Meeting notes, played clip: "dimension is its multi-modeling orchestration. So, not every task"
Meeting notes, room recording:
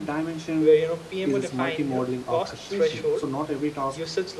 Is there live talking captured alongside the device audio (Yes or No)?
Yes